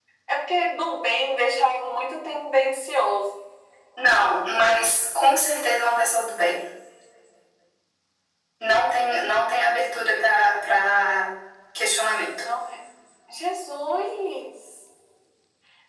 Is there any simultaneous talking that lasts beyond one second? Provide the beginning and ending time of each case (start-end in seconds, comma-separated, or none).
none